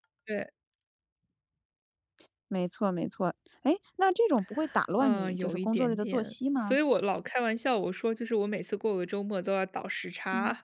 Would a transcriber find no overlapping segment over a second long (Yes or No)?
No